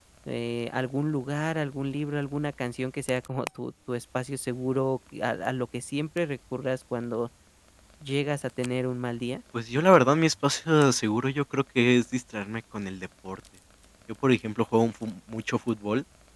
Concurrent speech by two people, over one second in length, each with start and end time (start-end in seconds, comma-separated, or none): none